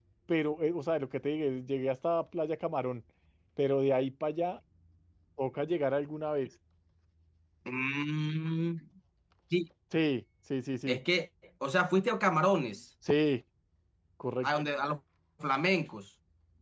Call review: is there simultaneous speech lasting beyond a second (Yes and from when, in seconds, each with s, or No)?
No